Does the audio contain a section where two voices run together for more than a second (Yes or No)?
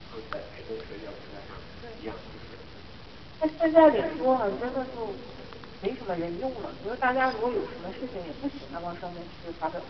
No